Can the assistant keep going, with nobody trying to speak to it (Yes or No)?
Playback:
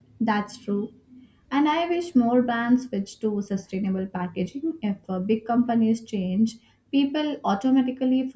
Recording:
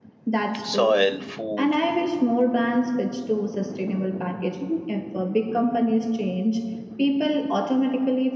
No